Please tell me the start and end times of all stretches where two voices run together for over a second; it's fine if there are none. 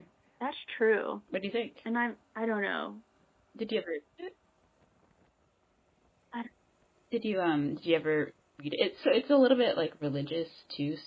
none

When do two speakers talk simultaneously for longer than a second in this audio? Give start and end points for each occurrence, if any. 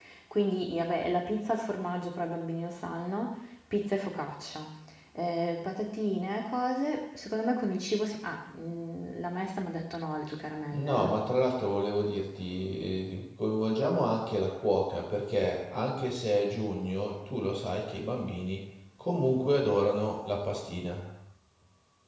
none

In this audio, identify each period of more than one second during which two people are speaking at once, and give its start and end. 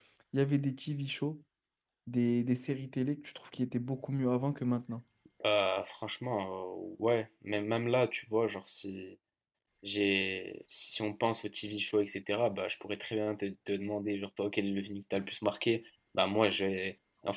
none

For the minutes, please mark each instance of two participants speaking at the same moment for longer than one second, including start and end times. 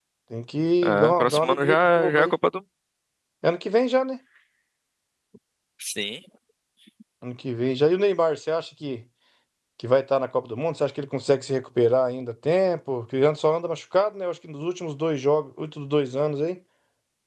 0.8-2.3

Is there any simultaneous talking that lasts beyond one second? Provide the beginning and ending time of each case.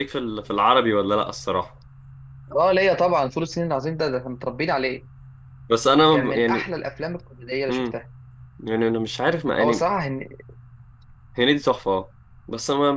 none

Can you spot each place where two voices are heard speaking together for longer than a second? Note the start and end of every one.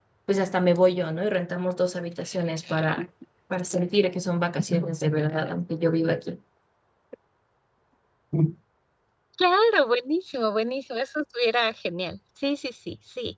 none

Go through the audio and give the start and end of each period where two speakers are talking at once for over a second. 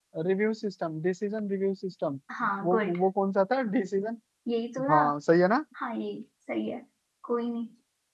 none

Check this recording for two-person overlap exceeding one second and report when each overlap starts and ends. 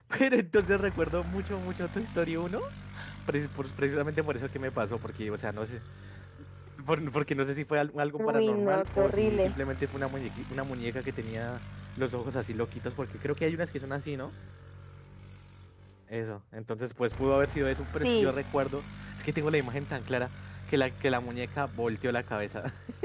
8.2-9.5

